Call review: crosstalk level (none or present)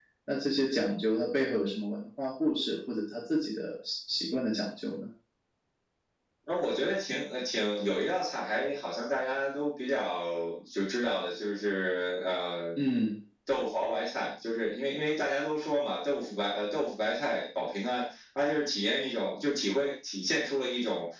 none